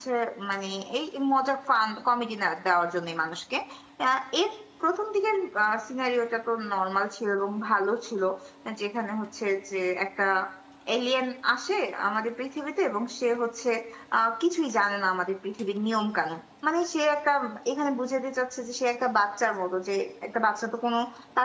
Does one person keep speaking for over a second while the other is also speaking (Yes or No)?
No